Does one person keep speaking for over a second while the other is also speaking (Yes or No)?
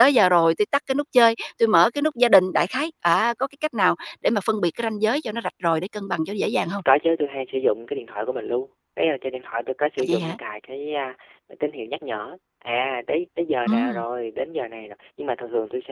No